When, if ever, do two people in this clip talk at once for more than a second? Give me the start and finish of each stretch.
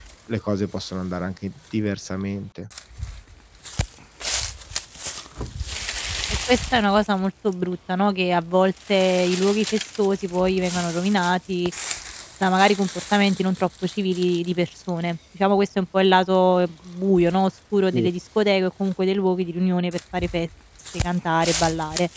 none

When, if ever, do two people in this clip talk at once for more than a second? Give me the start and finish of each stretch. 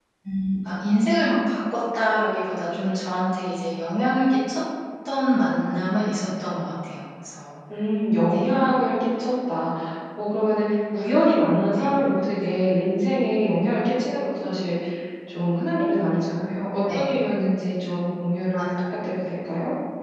none

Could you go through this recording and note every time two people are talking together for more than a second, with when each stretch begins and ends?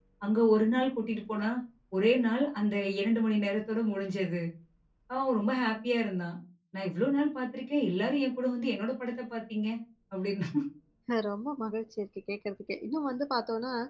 none

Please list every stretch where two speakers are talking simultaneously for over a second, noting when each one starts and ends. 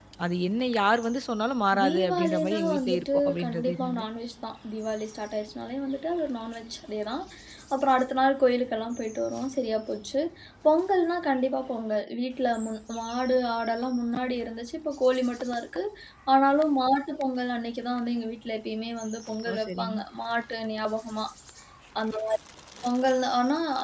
1.8-4.0

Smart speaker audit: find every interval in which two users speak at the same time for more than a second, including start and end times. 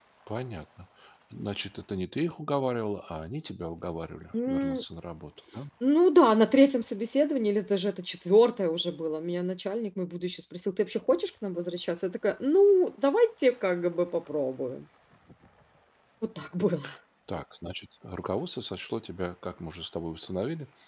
none

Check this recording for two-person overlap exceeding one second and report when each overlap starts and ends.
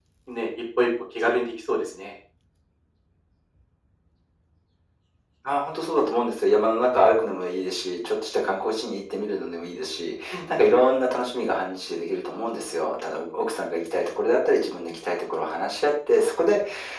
none

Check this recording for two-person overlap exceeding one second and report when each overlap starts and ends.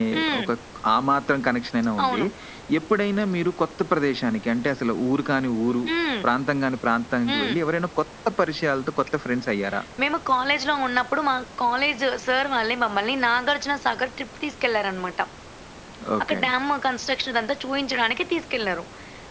none

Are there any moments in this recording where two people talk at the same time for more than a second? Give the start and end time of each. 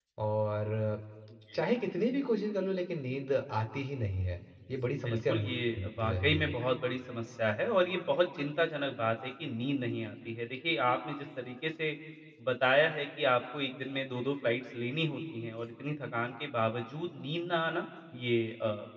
5.0-6.5

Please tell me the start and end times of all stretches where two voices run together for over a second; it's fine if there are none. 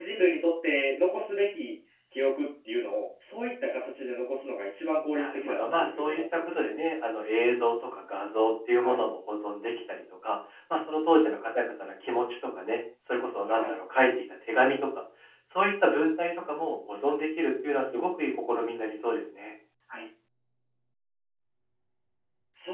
5.1-6.7

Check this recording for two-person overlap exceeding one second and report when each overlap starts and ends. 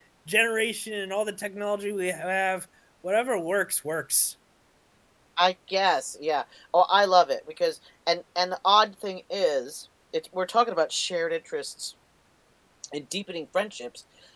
none

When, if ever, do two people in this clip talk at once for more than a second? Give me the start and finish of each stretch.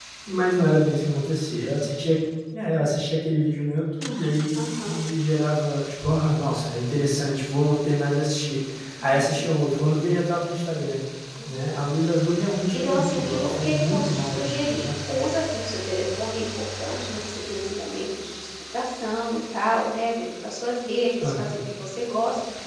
12.7-14.9

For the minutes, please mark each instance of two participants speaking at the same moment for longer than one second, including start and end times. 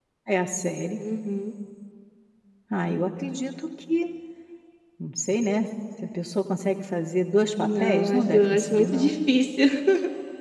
7.5-9.2

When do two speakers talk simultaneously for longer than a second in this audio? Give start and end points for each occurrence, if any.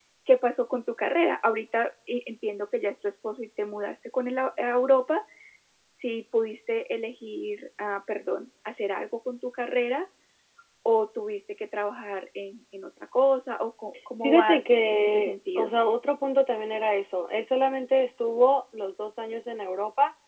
14.2-15.7

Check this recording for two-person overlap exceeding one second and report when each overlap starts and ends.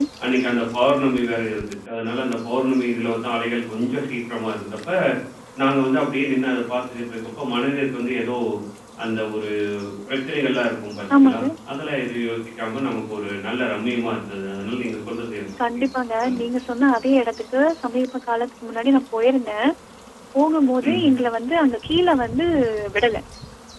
none

